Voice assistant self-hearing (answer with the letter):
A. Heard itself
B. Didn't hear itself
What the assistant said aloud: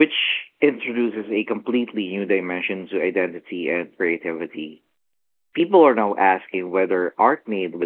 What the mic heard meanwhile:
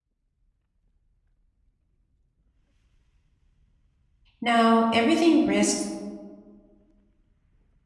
B